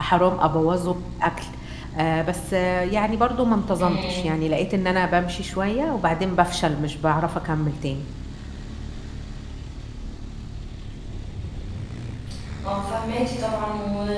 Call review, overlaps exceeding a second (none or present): none